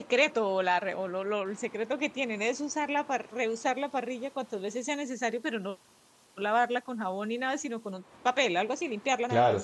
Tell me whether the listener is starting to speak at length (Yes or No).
Yes